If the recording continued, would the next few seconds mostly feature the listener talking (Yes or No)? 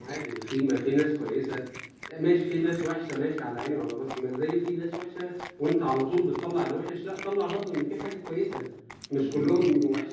No